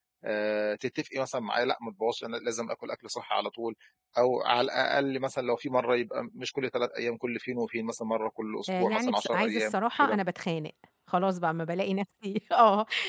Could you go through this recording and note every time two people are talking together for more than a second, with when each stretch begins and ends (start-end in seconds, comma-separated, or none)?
8.8-10.2